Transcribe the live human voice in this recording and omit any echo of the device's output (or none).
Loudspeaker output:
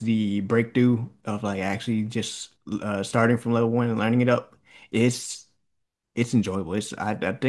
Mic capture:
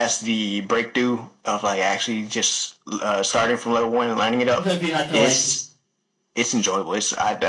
sometimes we had to like